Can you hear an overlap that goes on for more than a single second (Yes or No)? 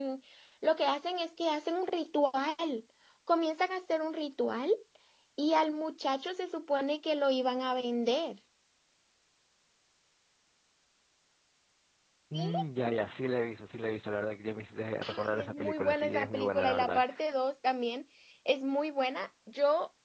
Yes